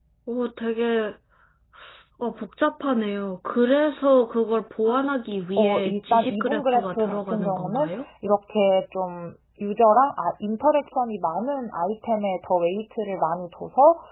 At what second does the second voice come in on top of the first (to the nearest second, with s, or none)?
6 s